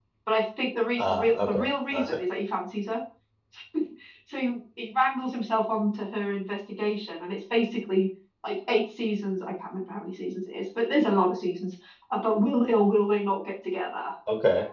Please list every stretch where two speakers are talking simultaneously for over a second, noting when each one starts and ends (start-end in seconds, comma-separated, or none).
1.0-2.2